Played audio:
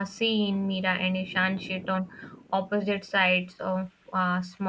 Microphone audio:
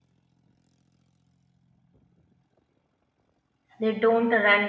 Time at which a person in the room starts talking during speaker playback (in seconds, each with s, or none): 3.8 s